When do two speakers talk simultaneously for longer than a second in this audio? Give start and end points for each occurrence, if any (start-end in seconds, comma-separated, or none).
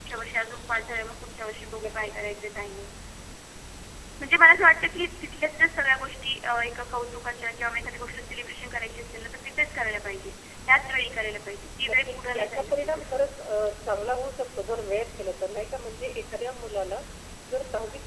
11.9-13.2